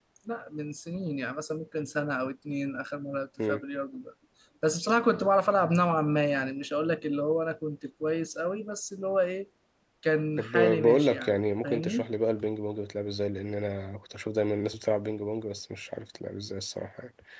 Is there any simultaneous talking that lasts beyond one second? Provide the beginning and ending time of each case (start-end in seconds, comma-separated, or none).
10.4-12.1